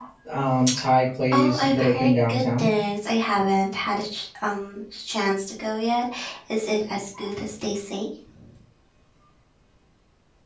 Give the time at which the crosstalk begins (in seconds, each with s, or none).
1.3 s